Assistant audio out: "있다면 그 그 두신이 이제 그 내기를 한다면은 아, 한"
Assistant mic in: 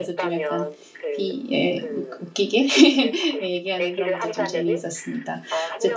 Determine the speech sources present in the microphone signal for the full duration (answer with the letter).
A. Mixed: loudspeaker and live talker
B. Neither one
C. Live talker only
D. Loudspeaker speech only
A